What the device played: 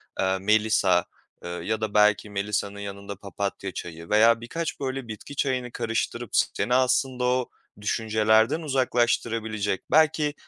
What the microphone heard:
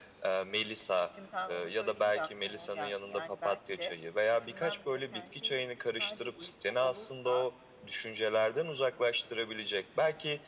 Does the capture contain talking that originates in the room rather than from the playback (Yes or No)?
Yes